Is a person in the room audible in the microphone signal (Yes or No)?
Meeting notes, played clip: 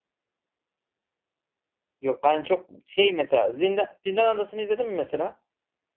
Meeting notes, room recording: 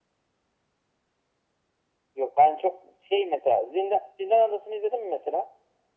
No